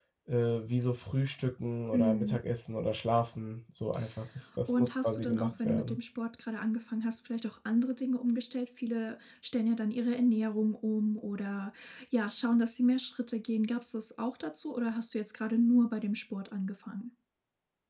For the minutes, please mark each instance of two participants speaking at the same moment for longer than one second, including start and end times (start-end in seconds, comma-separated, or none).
4.7-6.0